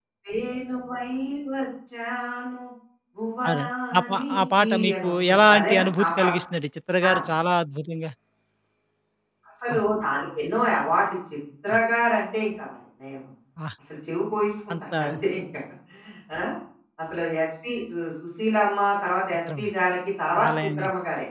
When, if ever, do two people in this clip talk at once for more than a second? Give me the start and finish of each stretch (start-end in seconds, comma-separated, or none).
3.5-6.3